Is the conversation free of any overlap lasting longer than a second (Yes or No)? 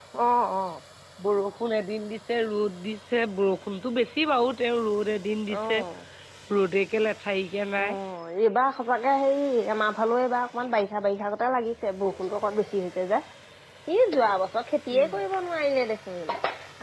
Yes